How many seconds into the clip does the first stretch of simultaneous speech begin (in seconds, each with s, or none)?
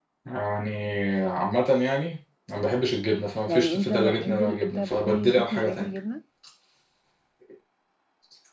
3.5 s